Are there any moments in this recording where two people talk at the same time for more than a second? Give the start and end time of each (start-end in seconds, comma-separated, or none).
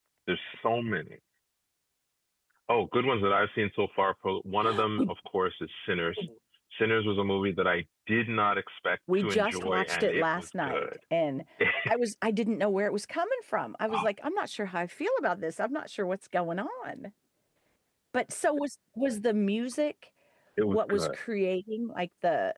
9.1-10.9